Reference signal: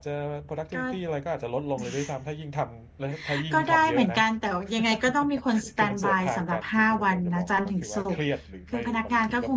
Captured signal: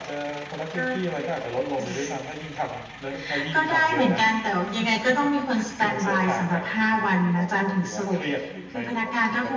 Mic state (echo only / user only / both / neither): echo only